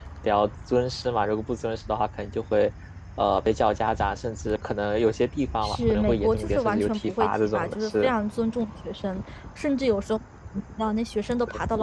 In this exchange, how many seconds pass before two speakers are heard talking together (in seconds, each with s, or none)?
5.6 s